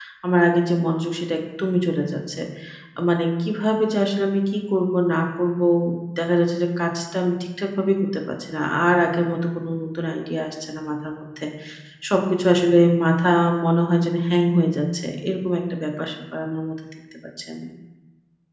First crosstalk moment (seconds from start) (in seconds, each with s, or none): none